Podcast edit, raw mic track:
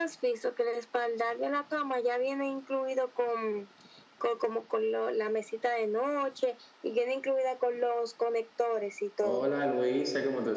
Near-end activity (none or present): present